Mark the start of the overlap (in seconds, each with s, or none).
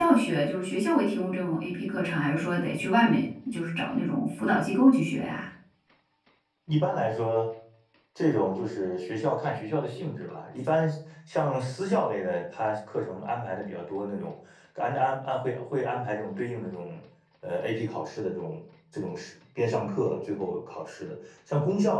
none